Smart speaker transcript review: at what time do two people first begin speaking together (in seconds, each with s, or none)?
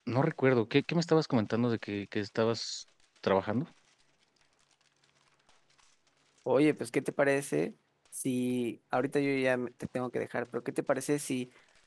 none